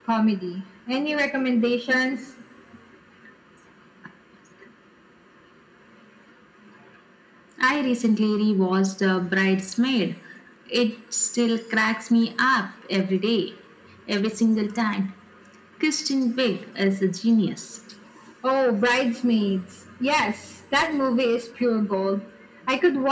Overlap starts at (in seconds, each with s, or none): none